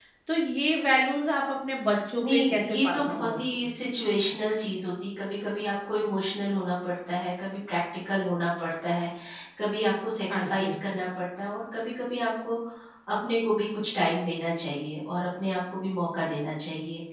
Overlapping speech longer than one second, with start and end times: 2.2-3.7

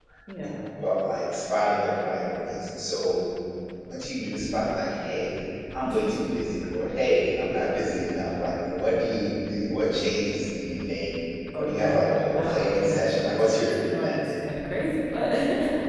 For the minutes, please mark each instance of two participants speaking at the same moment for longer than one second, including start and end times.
11.6-14.4

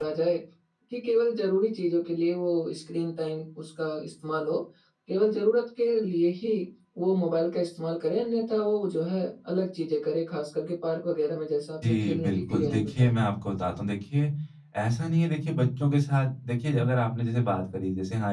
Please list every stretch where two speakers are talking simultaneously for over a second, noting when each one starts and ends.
11.8-13.1

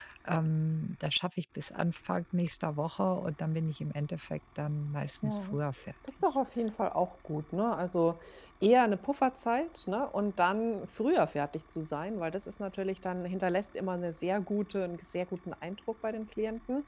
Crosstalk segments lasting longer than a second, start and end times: none

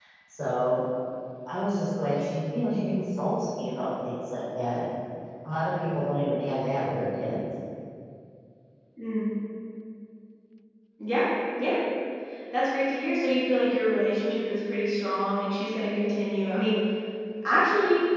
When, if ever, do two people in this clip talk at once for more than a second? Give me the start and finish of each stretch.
none

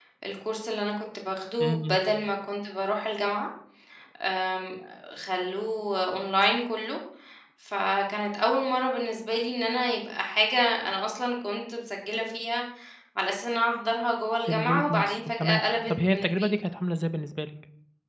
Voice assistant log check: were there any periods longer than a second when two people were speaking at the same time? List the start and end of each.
14.5-16.5

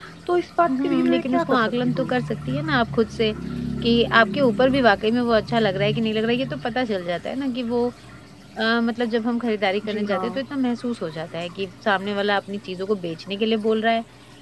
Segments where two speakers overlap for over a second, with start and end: 0.7-2.1

